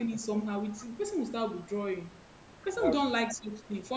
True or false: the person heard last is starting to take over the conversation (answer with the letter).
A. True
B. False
B